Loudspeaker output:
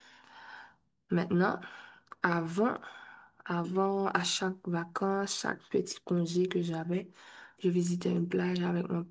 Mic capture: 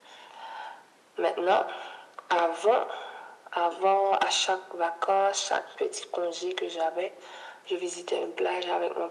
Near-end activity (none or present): none